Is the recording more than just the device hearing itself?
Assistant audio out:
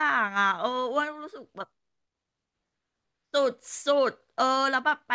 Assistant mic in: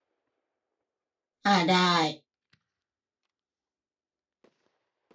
Yes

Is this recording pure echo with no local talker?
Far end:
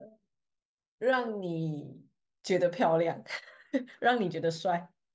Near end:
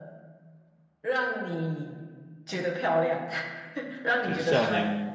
No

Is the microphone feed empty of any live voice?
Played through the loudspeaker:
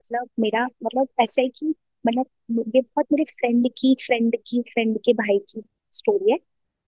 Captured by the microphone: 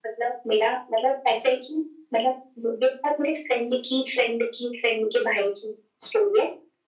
Yes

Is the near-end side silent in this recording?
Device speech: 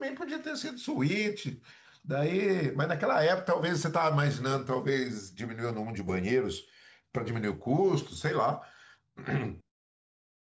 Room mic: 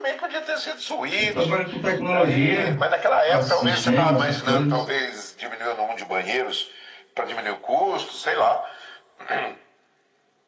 No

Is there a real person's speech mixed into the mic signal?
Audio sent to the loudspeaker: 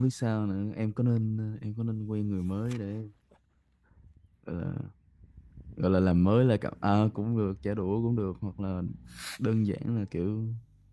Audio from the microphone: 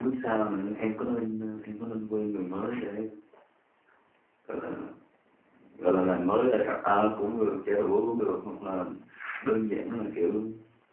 No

